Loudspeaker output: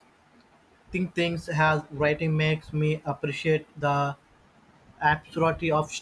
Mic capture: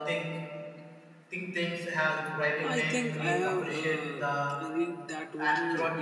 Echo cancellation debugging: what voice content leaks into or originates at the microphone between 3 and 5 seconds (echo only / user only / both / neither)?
both